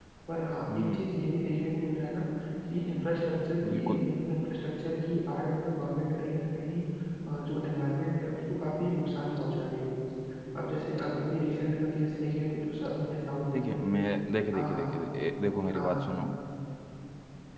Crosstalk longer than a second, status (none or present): none